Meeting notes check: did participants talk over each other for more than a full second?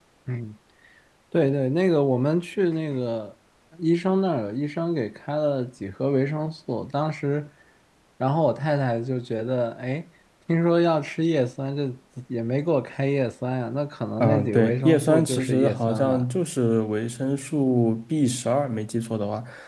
Yes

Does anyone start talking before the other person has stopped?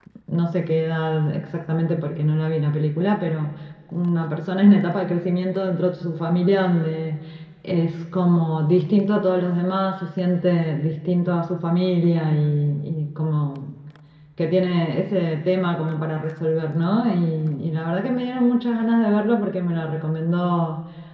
No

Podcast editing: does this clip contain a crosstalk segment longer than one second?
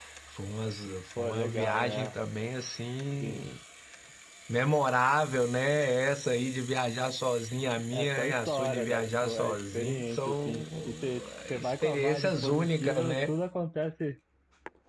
Yes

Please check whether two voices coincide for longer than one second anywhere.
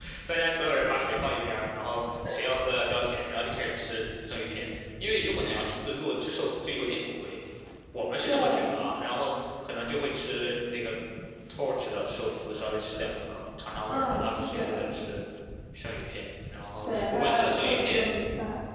Yes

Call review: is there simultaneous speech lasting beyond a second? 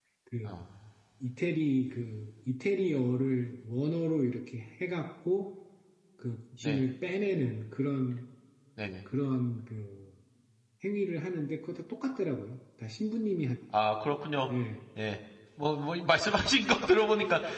No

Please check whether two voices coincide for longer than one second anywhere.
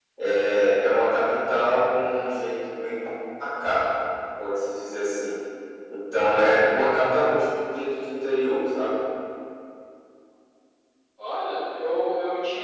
No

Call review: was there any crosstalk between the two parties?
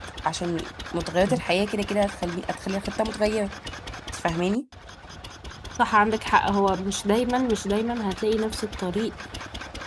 No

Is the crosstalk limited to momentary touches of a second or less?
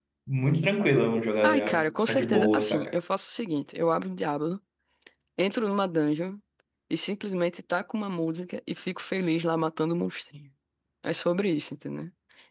No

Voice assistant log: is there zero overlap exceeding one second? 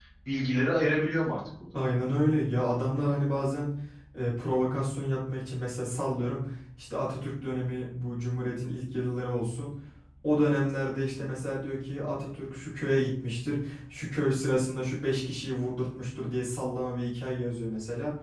Yes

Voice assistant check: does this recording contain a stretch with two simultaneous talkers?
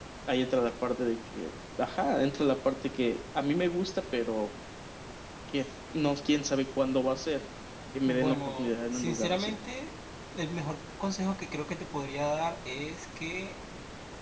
Yes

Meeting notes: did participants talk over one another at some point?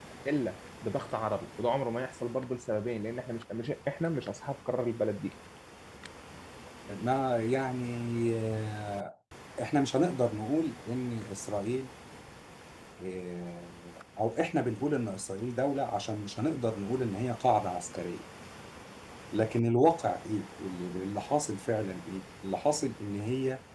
No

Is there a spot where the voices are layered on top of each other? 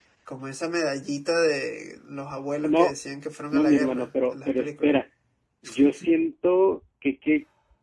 Yes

